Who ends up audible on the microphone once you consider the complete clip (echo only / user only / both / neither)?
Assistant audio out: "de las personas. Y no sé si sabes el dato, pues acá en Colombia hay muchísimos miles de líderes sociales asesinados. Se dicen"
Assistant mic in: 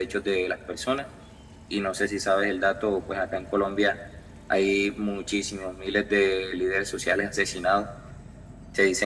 echo only